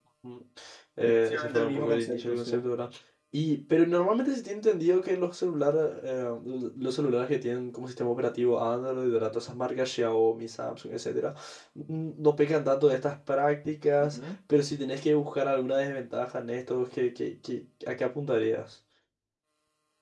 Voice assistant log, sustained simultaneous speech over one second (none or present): present